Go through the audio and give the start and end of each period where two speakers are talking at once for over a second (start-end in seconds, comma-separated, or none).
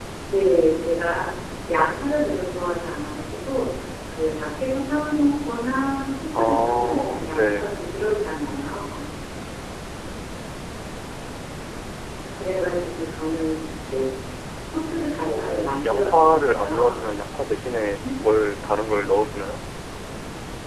6.3-7.7, 15.3-17.1